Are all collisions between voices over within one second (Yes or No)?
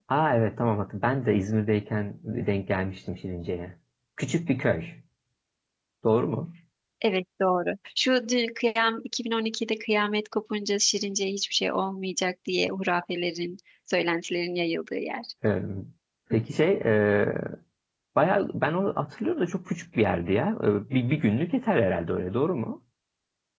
Yes